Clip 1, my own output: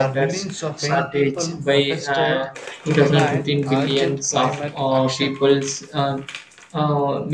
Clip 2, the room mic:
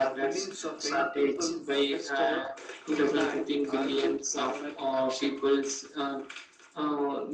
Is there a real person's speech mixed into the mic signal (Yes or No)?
No